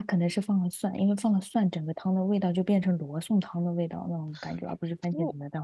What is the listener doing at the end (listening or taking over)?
taking over